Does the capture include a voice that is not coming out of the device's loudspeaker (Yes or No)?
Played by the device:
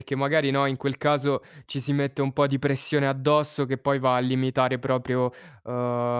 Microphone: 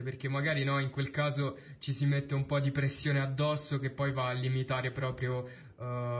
No